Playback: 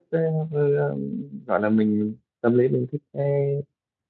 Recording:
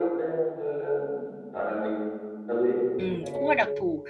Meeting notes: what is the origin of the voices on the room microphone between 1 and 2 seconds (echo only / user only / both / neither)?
echo only